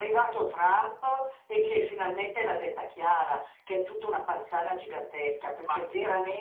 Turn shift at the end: No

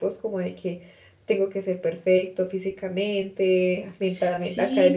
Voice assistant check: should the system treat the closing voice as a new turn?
Yes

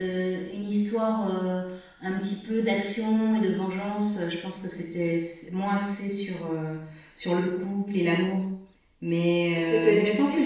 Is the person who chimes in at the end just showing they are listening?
Yes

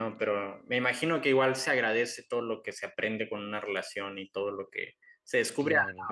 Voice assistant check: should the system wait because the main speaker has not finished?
Yes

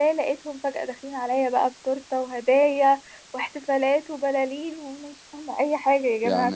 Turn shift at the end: Yes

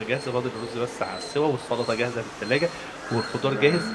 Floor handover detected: No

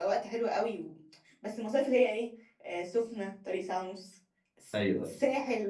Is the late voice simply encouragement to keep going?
Yes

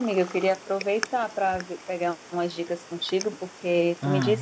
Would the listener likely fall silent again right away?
Yes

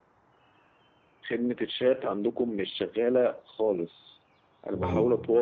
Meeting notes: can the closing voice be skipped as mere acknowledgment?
Yes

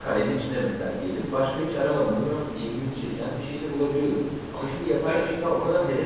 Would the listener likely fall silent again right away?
Yes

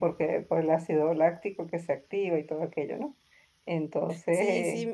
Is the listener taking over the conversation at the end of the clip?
Yes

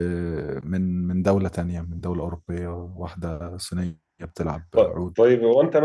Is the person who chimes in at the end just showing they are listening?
No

